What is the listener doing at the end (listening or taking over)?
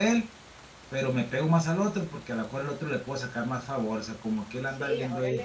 taking over